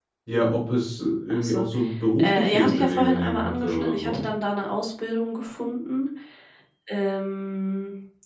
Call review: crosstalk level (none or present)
present